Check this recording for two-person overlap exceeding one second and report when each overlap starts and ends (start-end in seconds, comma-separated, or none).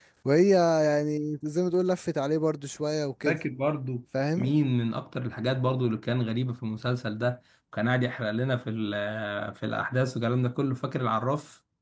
none